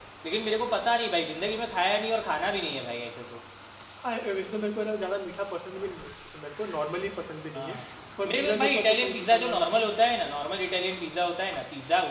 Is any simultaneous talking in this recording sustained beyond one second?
Yes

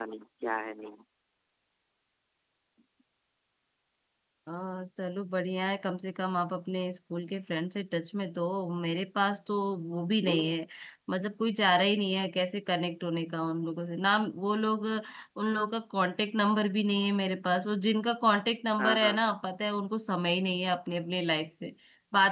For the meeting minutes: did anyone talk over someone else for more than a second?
No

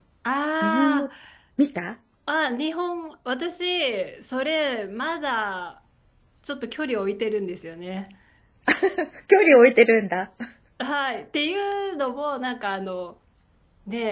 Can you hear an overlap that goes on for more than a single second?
No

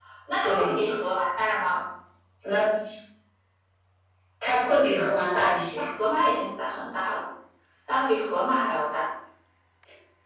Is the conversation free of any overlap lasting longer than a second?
Yes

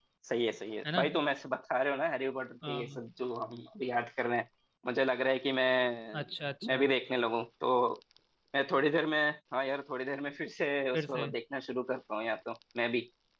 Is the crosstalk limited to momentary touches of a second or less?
Yes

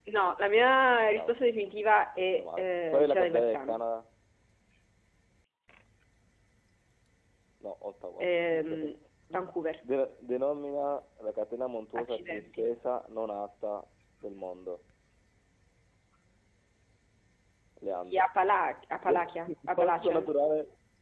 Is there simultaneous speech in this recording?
Yes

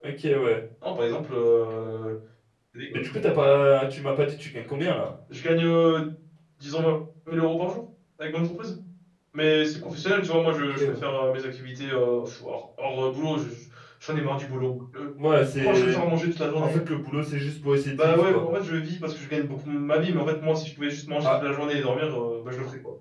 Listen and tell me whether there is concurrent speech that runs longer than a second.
No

